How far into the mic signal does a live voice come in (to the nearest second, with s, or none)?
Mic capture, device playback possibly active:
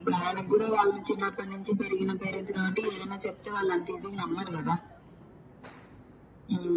none